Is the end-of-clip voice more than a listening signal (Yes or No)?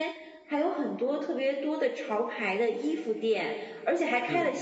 No